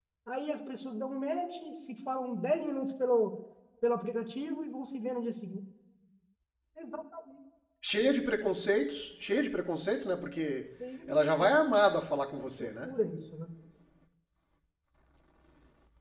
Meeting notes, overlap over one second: none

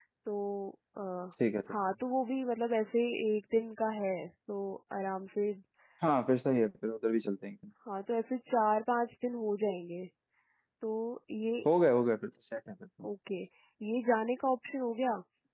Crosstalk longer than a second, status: none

